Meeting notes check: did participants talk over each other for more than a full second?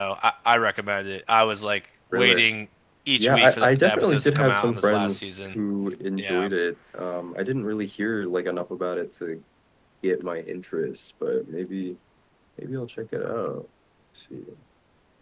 Yes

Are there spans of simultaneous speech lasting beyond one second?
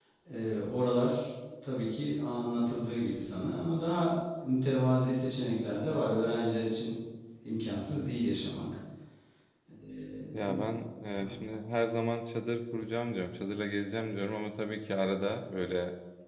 No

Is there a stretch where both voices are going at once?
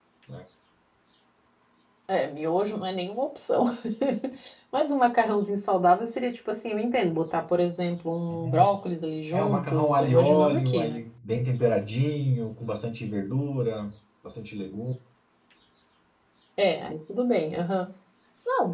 Yes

